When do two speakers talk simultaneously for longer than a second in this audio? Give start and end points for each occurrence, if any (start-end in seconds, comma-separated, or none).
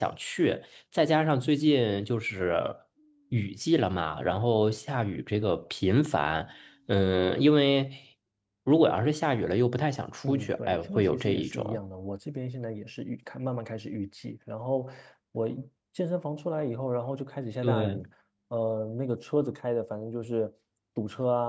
10.2-11.8